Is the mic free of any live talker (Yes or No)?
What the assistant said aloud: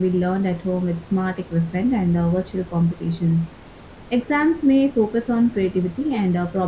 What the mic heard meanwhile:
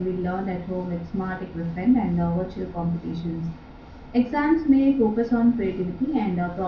Yes